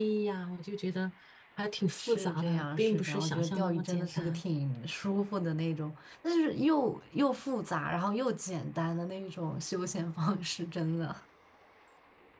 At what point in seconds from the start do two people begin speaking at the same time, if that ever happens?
2.0 s

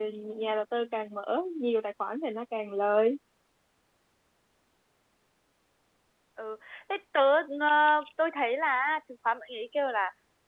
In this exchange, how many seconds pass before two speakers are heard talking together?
none

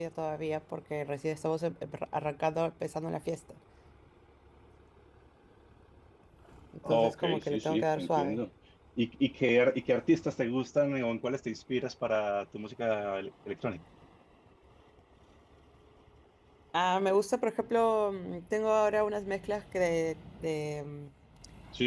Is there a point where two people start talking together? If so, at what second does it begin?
6.9 s

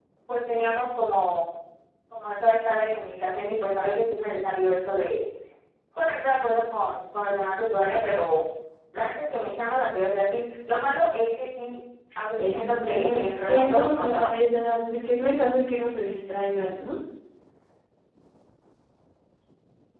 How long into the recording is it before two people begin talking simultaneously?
12.4 s

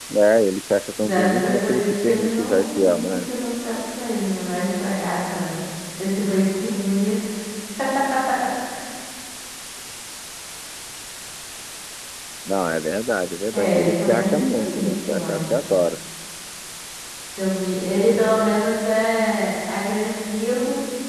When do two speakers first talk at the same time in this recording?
1.0 s

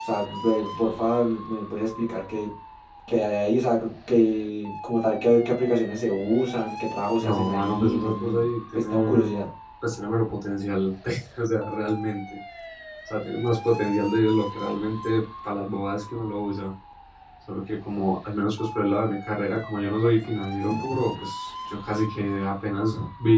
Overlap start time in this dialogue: 7.2 s

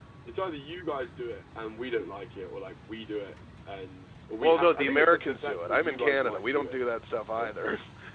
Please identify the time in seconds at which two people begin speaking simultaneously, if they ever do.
4.4 s

